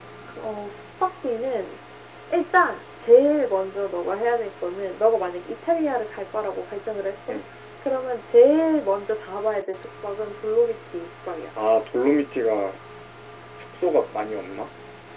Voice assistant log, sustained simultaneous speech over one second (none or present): none